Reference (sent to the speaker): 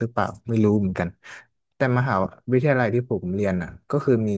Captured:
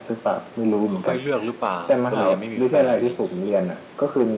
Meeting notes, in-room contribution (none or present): present